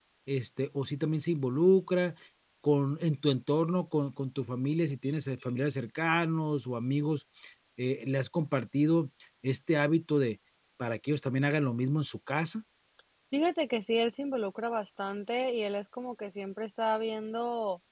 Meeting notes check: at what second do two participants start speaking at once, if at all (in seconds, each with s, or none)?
none